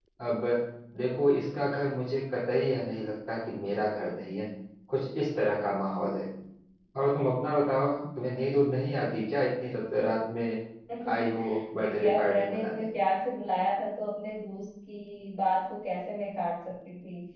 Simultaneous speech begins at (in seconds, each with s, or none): 11.1 s